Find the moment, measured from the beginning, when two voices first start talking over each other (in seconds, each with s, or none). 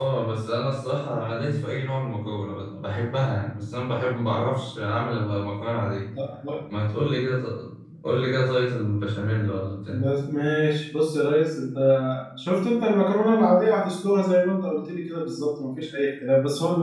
none